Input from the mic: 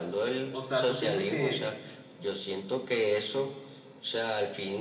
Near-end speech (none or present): present